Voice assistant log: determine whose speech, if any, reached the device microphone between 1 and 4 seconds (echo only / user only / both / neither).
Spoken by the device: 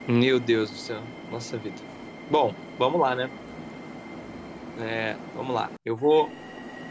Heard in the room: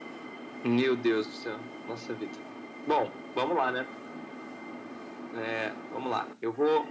echo only